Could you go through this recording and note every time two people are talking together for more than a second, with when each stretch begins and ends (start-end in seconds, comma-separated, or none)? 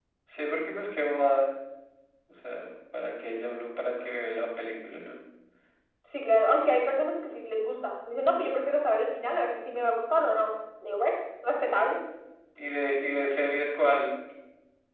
none